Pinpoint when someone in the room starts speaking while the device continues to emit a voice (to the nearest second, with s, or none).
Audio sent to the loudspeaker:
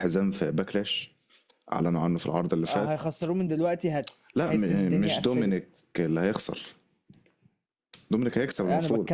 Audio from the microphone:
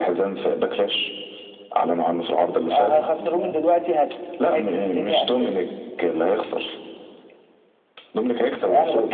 3 s